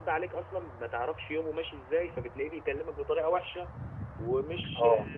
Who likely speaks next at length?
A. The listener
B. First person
B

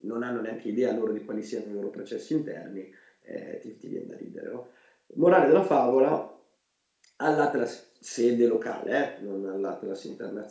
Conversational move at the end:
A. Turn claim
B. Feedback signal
B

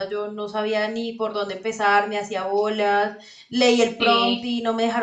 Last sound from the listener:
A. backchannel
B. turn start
A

